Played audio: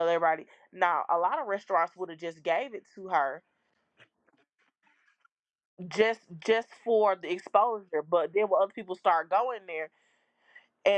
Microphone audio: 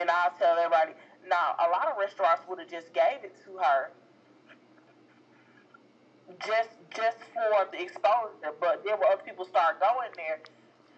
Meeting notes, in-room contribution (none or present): none